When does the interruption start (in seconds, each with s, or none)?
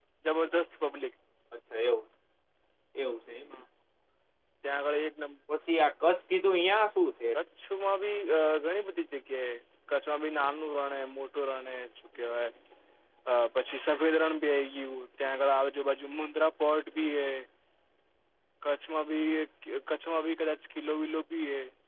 none